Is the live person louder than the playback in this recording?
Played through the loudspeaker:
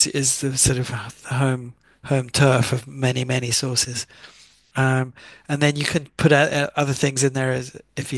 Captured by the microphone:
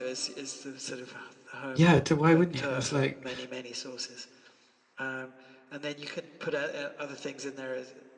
Yes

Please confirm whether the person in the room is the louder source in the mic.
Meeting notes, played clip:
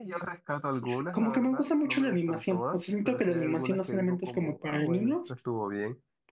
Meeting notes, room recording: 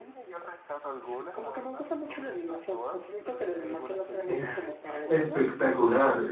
Yes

